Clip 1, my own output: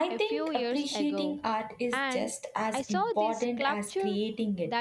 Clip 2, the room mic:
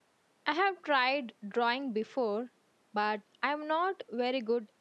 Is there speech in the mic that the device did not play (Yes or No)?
Yes